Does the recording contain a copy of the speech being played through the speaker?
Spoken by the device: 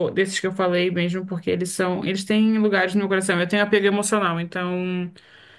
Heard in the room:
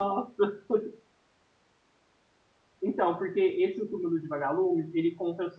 No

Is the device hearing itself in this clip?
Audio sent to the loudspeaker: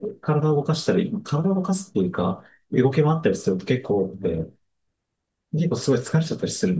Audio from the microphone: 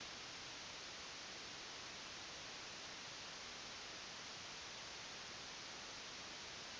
No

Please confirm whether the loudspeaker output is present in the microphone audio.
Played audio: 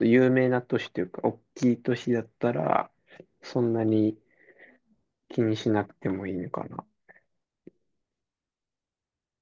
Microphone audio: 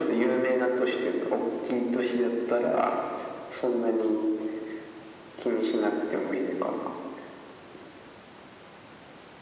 Yes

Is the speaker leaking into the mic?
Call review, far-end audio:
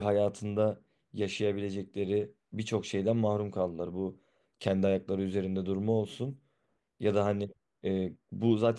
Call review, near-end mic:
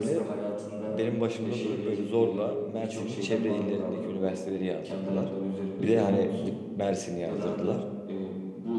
Yes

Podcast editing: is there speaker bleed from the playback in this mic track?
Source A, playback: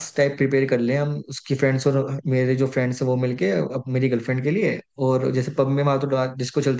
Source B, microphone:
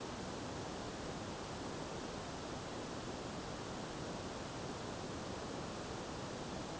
No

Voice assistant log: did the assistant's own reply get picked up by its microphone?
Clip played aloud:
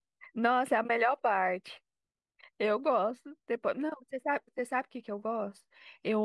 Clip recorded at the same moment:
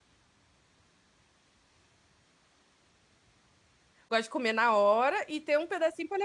No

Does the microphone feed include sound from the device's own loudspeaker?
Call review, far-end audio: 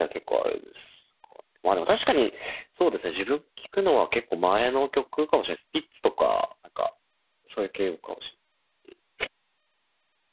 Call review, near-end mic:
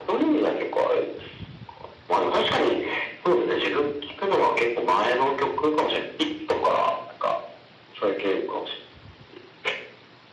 Yes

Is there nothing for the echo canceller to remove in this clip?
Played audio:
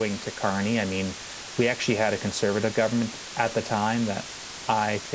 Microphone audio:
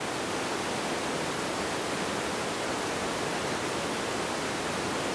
Yes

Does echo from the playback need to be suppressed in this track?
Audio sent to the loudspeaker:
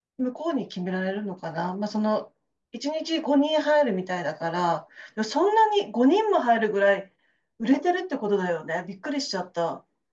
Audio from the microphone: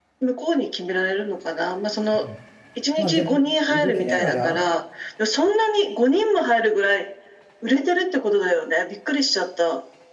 Yes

